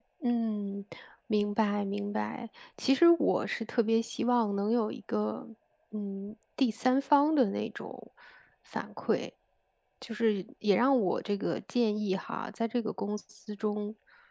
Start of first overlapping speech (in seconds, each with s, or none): none